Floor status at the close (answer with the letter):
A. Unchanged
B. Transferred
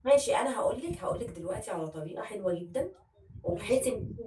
A